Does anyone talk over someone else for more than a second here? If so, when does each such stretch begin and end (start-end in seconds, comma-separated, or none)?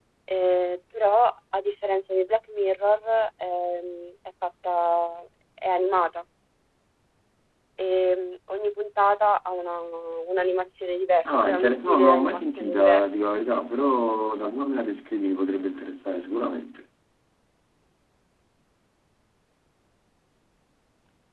11.2-13.3